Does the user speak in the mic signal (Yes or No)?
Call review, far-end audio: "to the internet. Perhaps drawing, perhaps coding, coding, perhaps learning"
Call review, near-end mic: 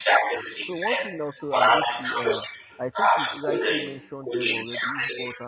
Yes